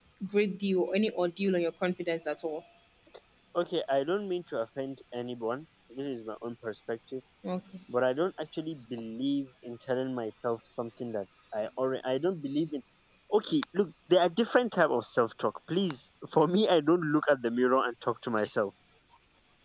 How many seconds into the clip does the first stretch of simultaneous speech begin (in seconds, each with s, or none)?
none